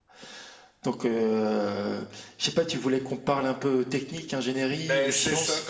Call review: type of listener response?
taking over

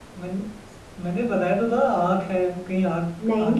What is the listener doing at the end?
taking over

